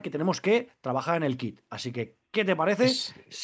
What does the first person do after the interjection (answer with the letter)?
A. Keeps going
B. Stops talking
A